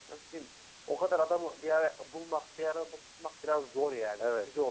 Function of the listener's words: taking over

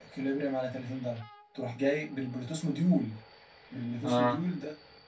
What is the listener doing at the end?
listening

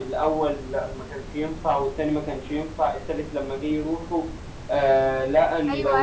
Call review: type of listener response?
taking over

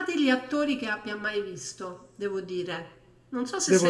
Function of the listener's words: taking over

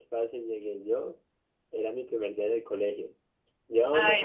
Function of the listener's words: listening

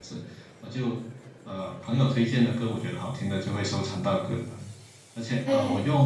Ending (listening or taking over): listening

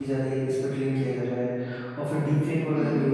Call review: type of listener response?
listening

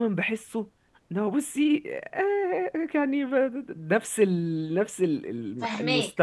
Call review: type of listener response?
taking over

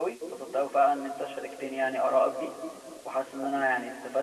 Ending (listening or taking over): listening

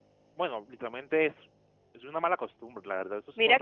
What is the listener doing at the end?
taking over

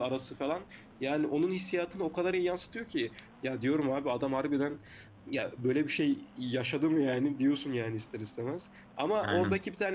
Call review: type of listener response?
listening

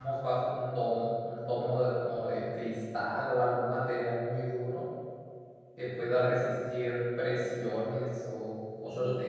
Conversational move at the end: taking over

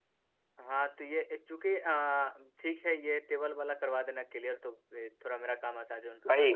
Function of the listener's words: taking over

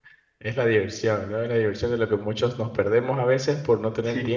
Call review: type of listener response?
listening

